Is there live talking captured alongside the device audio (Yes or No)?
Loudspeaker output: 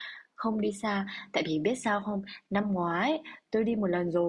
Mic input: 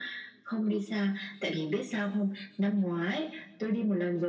No